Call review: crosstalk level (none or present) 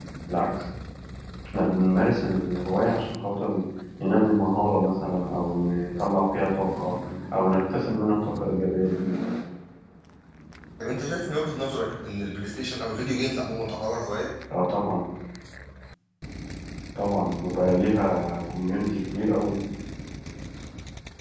none